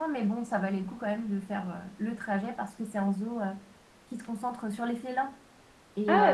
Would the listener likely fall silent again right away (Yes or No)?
No